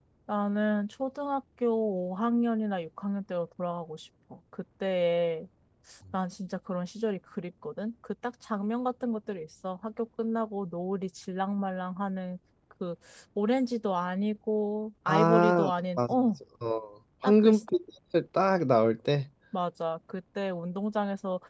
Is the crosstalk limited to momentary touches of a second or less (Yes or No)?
No